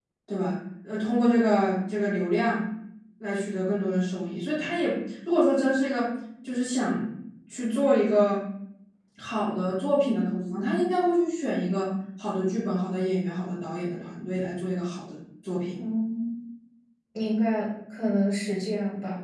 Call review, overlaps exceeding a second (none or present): none